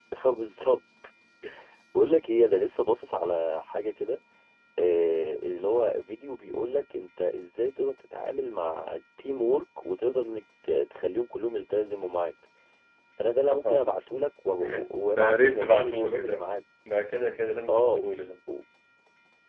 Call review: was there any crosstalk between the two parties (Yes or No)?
Yes